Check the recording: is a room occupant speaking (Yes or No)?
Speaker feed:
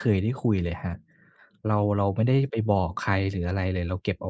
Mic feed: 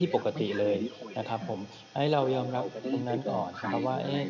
Yes